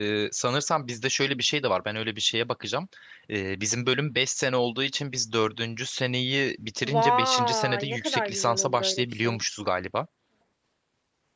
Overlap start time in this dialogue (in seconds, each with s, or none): 6.8 s